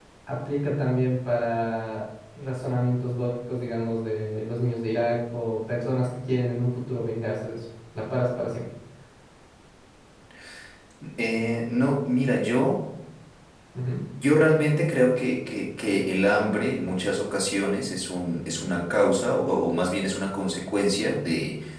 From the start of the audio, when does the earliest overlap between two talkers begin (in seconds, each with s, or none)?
none